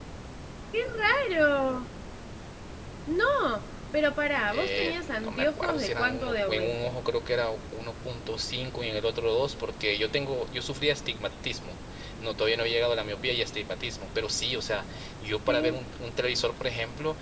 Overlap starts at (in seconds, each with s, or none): 4.5 s